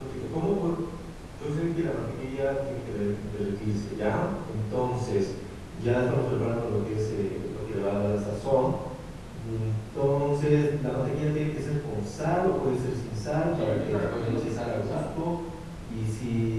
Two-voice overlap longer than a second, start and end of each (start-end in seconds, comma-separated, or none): 13.5-15.0